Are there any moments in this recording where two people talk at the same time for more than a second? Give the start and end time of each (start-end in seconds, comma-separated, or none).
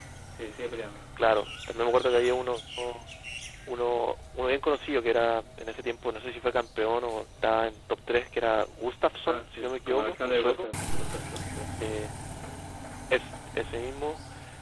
9.3-10.7